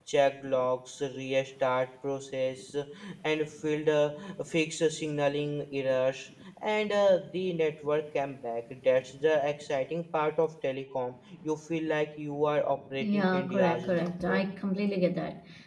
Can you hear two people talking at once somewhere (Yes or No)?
Yes